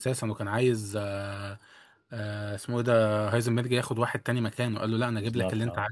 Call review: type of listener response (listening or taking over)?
listening